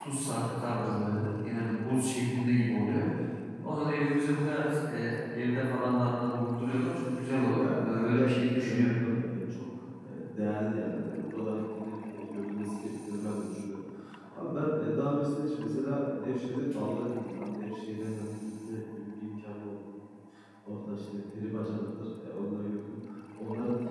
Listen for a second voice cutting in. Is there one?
Yes, from 7.6 s

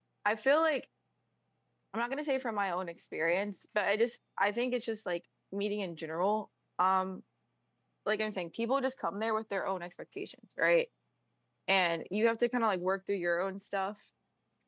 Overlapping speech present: No

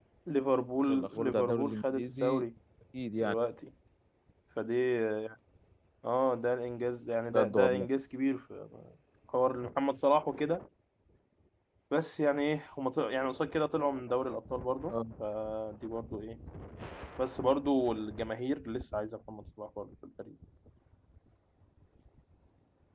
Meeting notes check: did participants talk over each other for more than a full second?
Yes, from 0.8 s

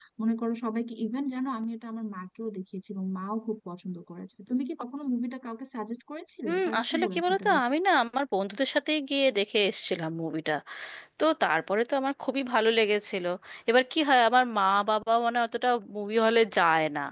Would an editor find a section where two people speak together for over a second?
Yes, from 6.4 s

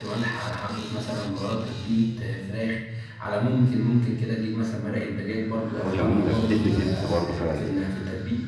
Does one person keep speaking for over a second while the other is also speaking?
Yes, from 5.8 s

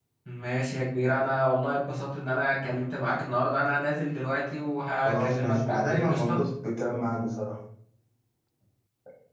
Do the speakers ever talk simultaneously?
Yes, from 5.0 s

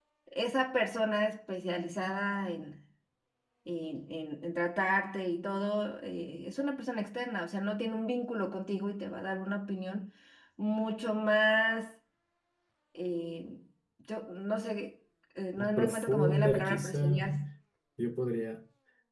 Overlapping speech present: Yes, from 15.6 s

